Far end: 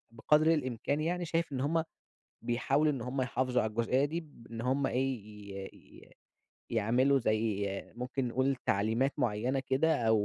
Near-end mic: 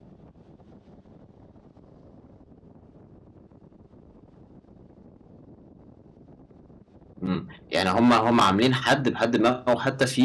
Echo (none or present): none